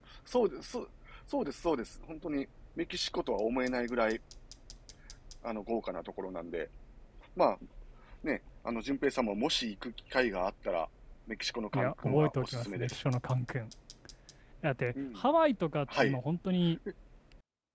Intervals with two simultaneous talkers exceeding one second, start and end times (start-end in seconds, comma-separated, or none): 11.7-13.0